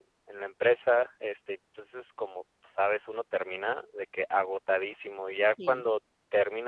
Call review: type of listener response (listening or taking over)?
listening